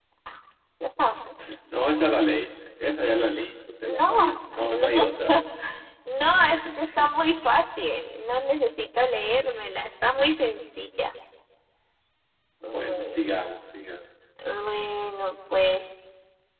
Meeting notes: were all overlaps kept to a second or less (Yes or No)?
No